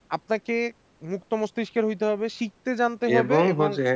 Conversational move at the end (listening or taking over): taking over